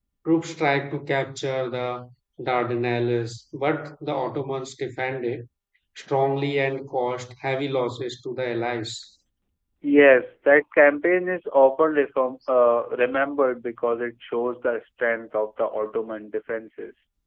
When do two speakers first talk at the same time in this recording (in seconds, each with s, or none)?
none